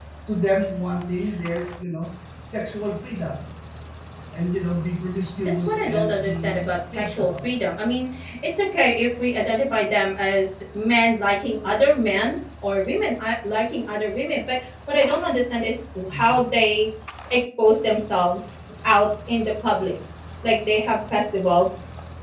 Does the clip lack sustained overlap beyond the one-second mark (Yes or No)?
No